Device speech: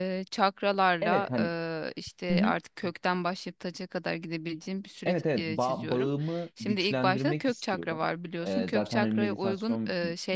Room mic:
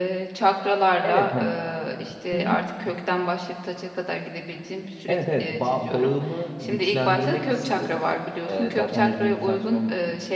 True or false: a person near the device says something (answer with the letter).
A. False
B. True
A